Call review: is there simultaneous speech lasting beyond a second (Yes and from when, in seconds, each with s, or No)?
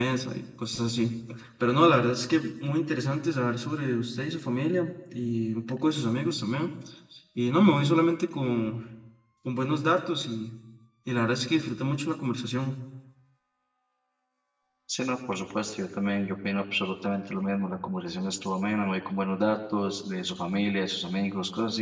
No